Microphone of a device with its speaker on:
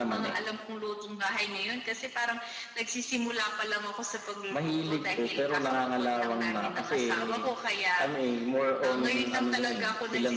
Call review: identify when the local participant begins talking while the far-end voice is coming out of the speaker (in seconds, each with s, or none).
none